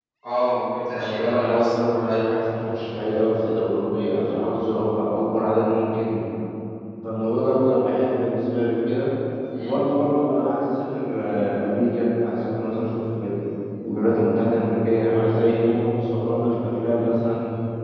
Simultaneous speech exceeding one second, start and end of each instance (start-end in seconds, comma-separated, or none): 1.0-2.4